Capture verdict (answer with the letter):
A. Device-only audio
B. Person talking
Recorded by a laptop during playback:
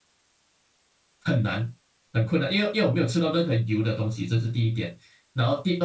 B